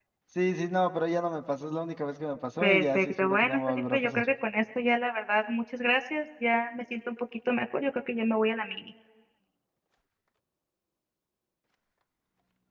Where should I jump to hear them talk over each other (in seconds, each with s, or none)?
2.6 s